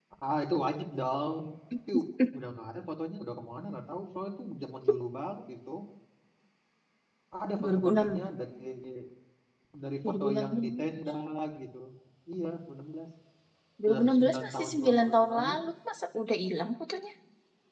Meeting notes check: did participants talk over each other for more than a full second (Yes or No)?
Yes